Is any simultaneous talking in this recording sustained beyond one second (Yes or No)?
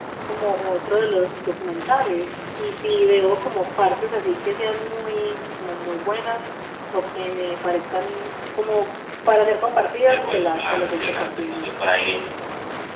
Yes